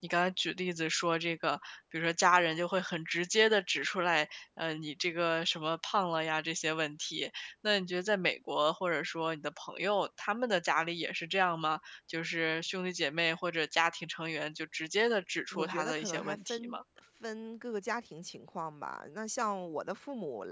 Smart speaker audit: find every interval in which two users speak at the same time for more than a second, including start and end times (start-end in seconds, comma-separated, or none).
15.5-16.8